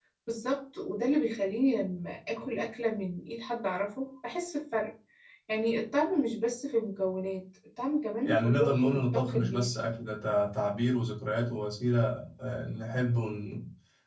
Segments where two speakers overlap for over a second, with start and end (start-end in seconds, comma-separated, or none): 8.2-9.7